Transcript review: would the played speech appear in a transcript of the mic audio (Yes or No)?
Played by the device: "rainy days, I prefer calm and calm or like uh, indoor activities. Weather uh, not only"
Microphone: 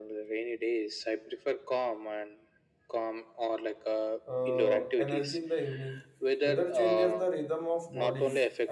Yes